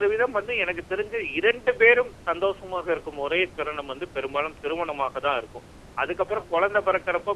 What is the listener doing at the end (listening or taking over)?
listening